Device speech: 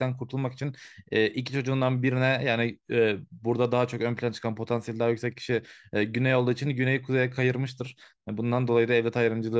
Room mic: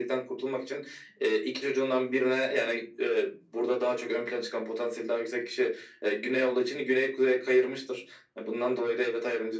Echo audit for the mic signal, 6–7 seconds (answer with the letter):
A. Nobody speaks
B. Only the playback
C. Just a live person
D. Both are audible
B